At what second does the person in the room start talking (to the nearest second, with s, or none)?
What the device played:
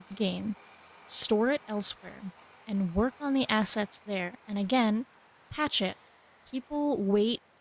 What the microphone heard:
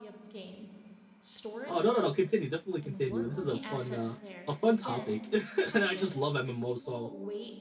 2 s